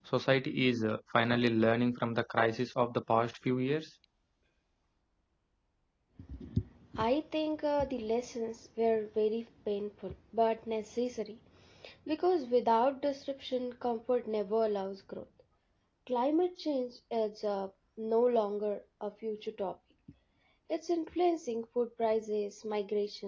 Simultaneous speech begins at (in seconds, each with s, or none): none